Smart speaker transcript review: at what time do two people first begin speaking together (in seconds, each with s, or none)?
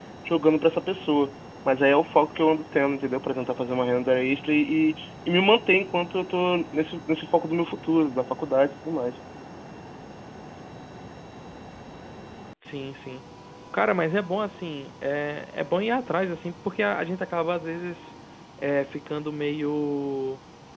none